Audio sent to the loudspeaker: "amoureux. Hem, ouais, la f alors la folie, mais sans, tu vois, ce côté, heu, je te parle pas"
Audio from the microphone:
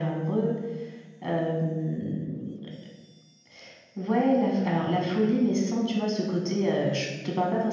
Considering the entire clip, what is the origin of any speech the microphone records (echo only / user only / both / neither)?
echo only